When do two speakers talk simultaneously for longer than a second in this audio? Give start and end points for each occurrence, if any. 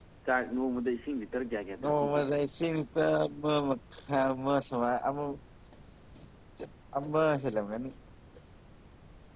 none

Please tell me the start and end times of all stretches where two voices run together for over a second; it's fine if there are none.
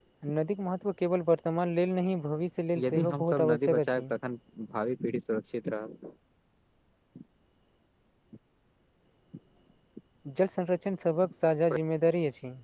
2.8-4.0

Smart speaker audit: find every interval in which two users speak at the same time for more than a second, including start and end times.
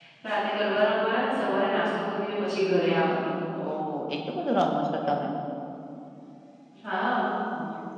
none

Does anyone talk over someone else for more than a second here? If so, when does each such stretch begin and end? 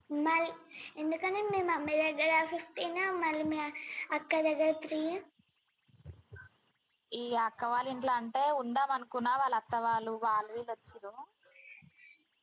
none

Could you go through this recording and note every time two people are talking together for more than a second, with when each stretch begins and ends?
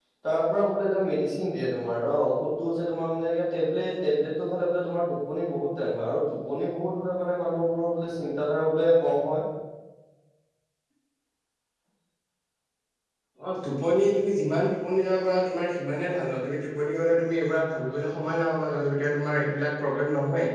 none

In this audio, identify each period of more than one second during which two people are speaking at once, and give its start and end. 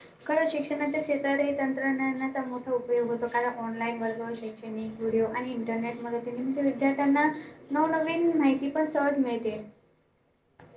none

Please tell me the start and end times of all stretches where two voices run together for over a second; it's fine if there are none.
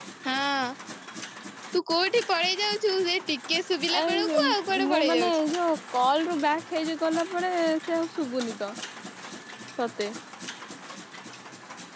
4.0-5.4

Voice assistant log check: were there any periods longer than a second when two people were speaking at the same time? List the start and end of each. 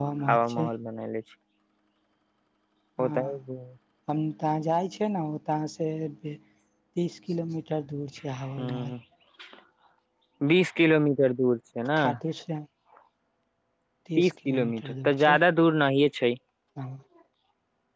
14.2-15.4

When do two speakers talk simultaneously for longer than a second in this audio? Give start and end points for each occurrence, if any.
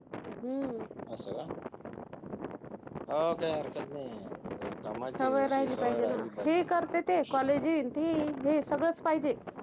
5.2-6.5

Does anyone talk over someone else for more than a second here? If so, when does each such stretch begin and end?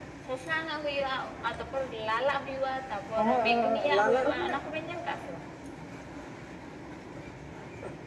3.2-4.6

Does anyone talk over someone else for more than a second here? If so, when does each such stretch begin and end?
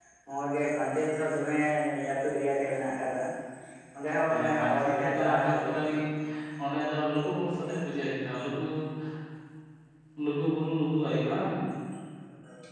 4.3-6.0

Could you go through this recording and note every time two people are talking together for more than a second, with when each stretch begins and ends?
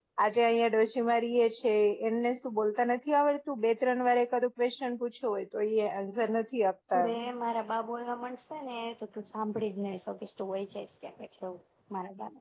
none

